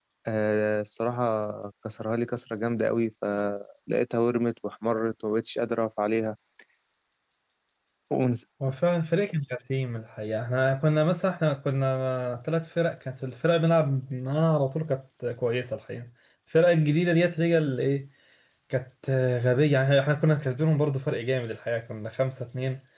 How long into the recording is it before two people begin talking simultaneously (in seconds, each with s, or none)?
none